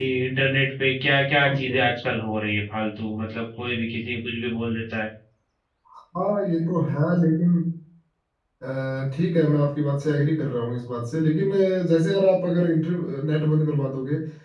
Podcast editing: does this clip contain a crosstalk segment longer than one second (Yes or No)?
No